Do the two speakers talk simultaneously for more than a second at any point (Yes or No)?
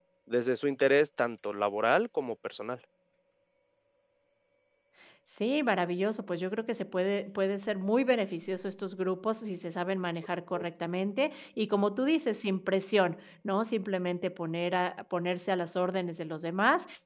No